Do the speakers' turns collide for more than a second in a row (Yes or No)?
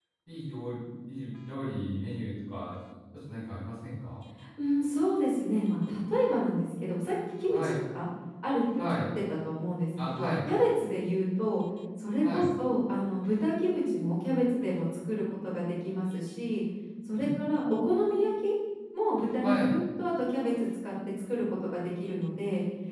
No